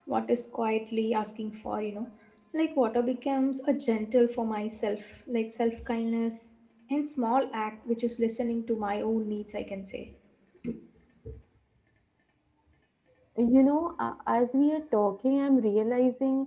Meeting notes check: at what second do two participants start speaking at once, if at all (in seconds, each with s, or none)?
none